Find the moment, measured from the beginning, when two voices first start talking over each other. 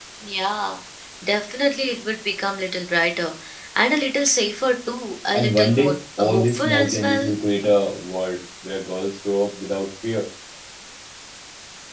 5.3 s

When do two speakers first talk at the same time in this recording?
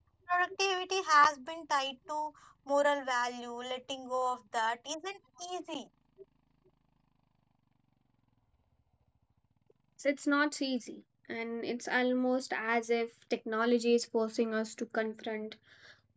none

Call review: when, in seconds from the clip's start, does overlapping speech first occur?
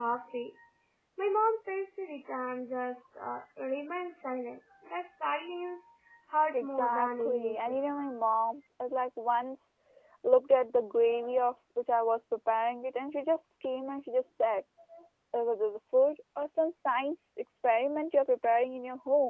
6.5 s

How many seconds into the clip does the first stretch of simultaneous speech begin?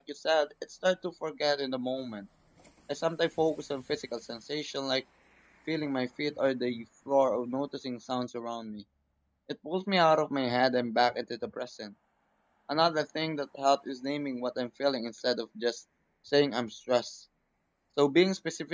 none

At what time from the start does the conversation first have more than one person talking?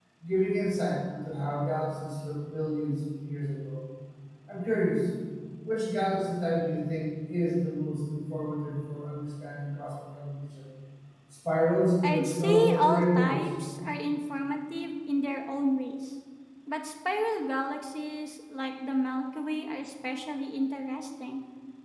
12.1 s

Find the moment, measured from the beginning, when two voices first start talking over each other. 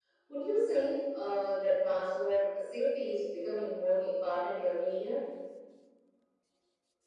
none

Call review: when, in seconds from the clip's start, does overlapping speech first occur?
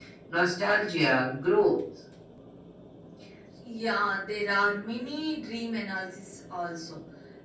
none

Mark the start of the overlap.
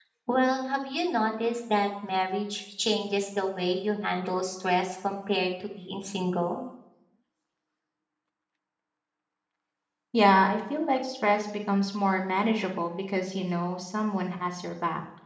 none

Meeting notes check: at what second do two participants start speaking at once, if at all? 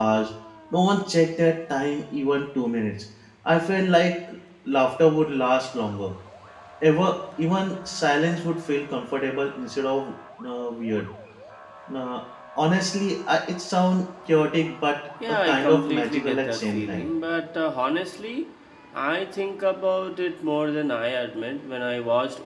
15.2 s

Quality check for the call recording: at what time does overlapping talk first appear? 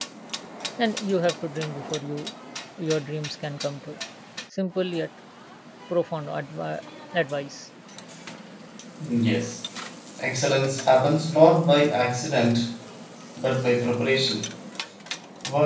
none

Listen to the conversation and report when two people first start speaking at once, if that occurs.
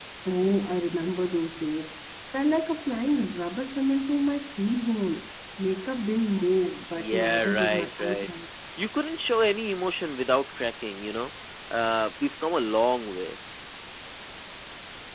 7.0 s

